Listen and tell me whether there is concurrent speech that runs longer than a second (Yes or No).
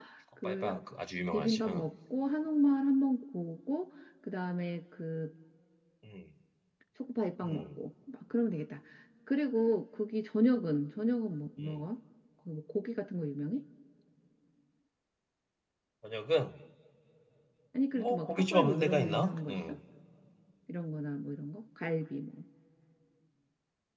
Yes